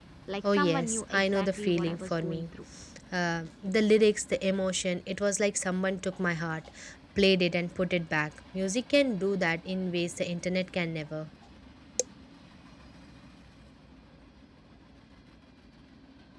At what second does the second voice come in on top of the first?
0.5 s

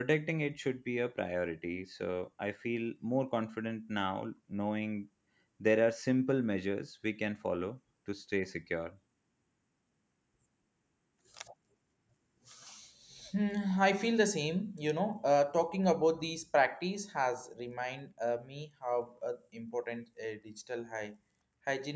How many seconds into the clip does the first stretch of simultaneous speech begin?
none

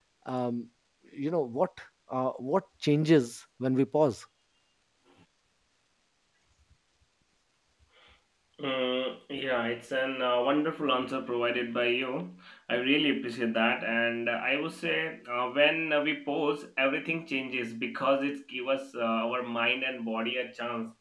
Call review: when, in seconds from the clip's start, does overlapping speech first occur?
none

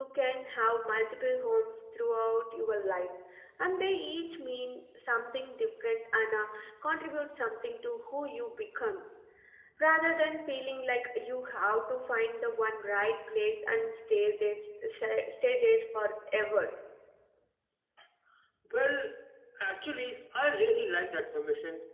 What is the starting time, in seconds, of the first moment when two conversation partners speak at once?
none

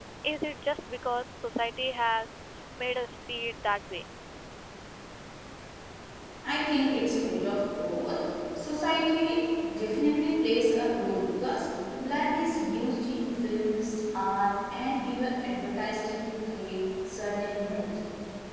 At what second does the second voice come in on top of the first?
none

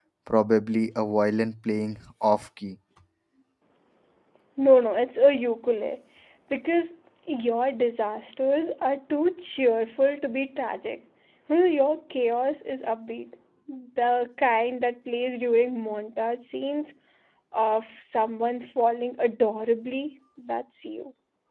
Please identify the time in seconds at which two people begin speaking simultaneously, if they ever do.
none

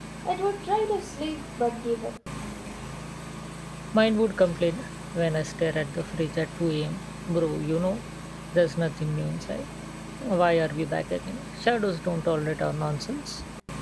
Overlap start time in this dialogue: none

